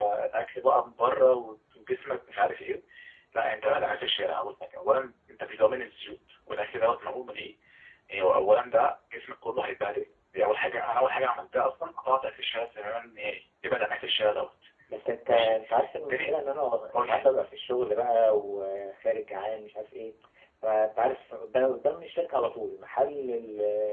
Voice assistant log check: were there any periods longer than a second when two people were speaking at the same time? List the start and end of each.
none

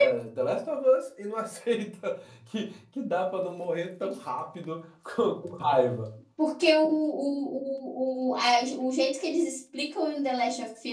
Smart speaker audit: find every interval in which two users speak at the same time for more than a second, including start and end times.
none

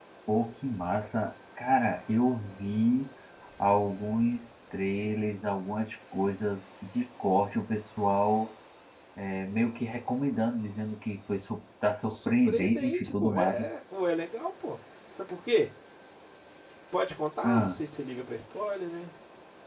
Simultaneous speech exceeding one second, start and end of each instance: 12.1-13.6

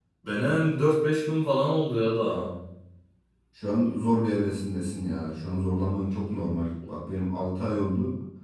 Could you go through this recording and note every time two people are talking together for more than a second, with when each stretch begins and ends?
none

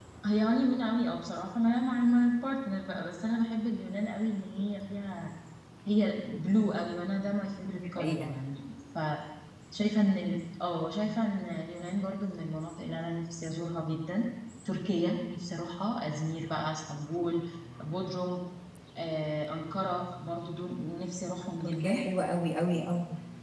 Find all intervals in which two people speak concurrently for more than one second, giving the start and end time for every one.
none

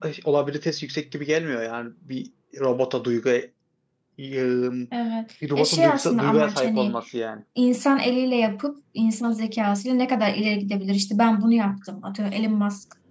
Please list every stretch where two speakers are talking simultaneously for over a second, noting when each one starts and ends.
5.6-7.0

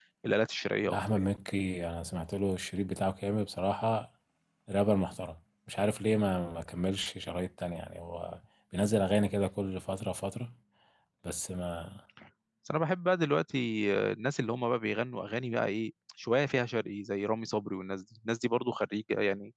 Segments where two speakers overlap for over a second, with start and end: none

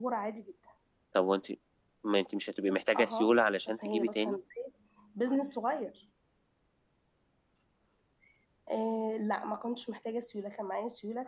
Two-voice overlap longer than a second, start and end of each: 3.0-4.4

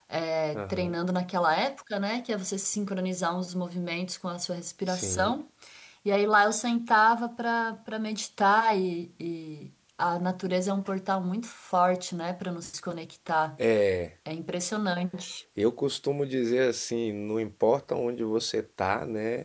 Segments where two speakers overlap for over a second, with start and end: none

